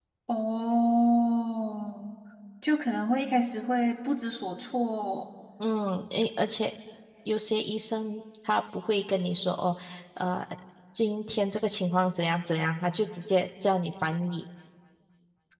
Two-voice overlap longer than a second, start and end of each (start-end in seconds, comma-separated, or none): none